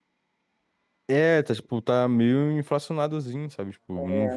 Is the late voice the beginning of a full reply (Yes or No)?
Yes